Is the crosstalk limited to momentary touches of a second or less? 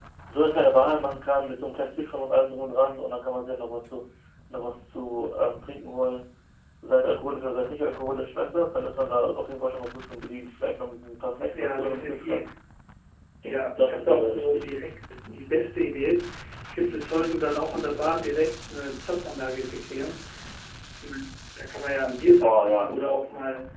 No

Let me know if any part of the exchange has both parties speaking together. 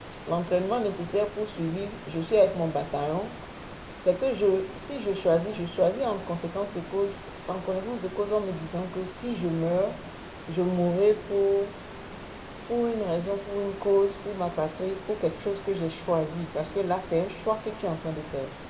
No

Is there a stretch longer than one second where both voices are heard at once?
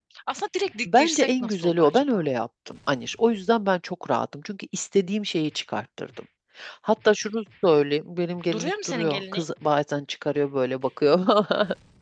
Yes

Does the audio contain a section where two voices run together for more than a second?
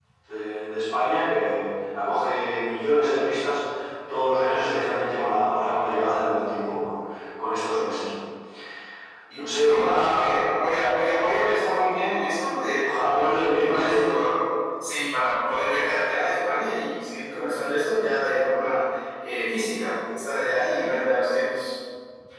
Yes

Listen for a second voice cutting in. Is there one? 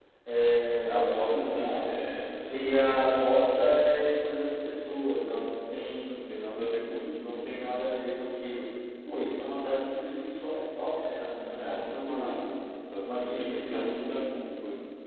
Yes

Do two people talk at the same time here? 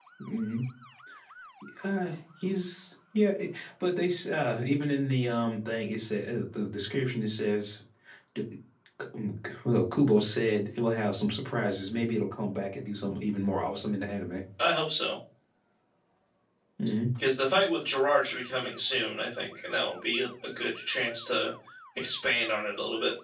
No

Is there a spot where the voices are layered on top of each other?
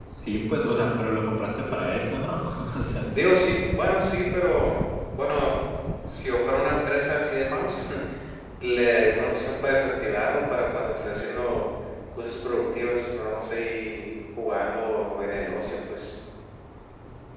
No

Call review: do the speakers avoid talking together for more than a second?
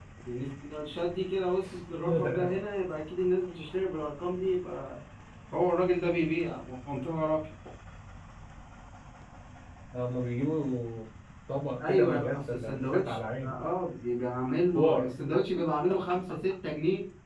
No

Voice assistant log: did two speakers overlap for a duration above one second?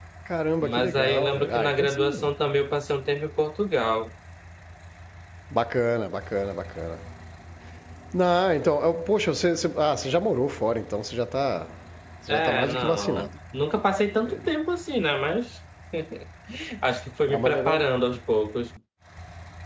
Yes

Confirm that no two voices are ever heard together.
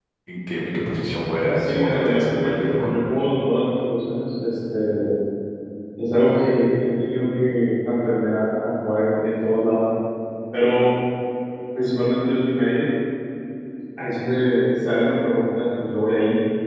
No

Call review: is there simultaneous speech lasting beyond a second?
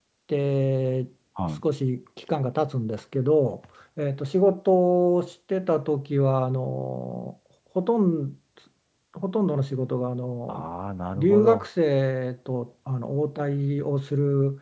No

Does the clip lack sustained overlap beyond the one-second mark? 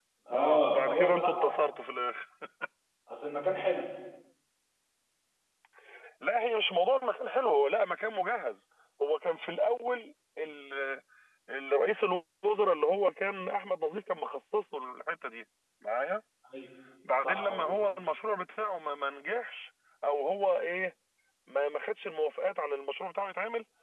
No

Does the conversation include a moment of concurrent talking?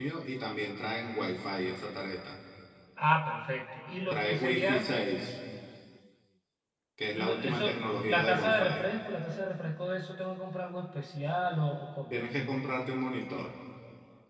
Yes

